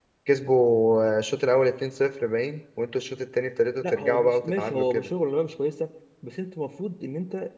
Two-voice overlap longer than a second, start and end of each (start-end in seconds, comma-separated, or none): 3.8-5.1